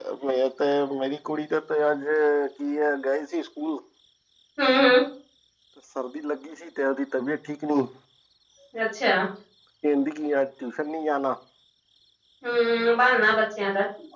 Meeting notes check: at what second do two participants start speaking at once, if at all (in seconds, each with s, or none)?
none